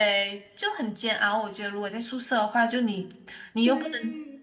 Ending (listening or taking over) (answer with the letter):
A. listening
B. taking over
A